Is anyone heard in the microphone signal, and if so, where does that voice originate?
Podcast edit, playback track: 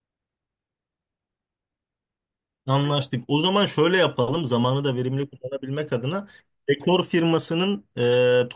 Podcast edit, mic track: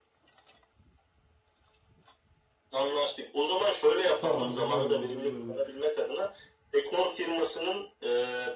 both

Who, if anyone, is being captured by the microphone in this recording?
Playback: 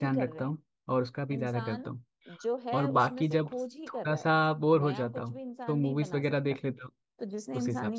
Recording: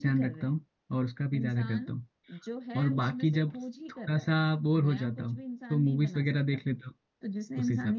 echo only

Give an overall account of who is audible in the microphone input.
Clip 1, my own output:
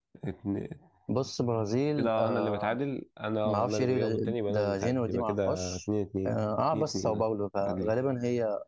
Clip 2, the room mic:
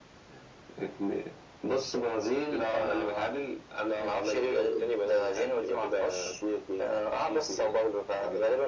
echo only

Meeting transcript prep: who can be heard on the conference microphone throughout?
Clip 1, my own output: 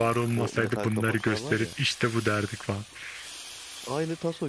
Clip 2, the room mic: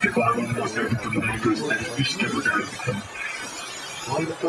both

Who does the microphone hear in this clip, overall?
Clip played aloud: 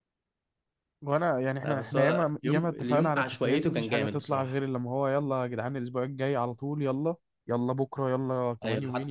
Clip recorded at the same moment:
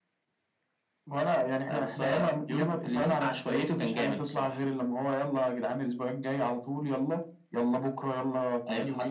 echo only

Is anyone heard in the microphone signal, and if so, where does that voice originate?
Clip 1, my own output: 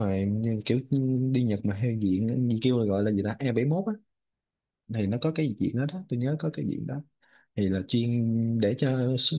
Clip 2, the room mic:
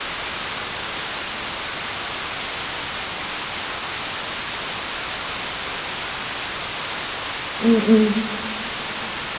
user only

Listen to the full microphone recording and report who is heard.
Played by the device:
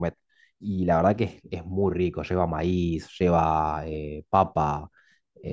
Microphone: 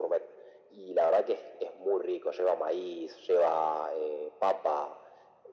echo only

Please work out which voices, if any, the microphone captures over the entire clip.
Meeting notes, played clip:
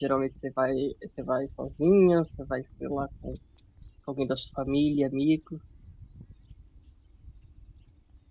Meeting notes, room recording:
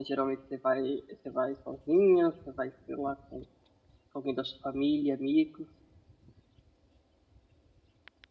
echo only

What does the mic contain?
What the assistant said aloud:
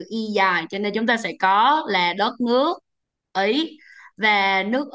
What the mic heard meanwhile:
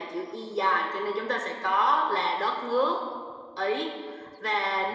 echo only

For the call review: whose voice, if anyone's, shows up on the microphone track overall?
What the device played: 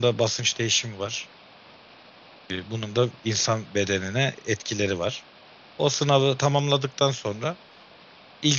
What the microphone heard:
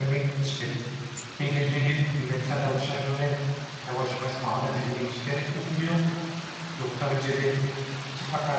user only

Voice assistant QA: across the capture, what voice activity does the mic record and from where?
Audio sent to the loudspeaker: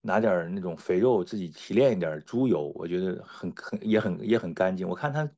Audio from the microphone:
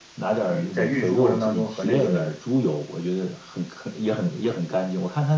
both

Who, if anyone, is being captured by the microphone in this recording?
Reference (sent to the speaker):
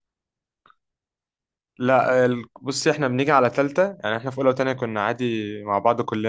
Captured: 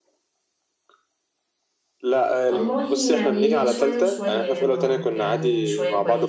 both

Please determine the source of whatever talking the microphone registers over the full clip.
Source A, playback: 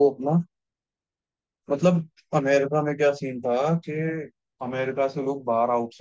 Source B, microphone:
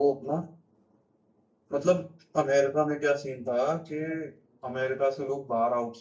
echo only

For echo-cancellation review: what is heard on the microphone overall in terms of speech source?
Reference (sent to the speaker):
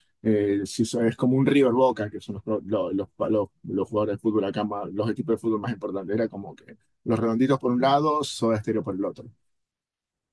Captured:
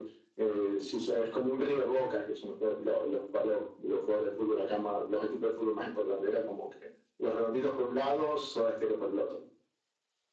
echo only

